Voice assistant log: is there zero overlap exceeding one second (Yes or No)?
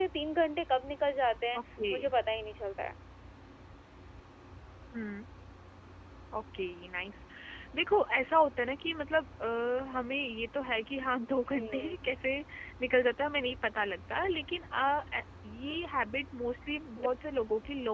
Yes